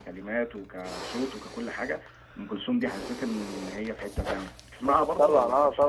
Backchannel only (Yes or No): No